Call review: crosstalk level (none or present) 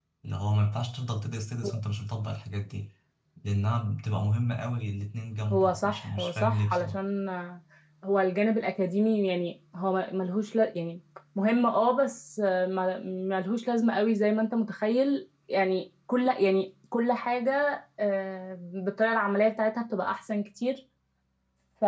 present